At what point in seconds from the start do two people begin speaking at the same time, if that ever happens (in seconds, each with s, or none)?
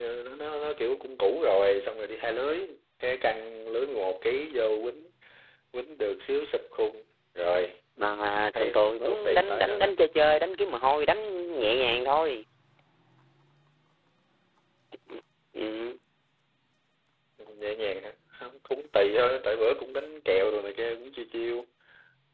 8.5 s